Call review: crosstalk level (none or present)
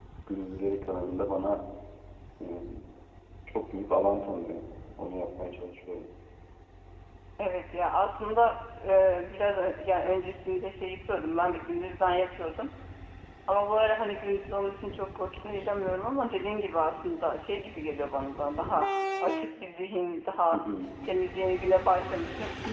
none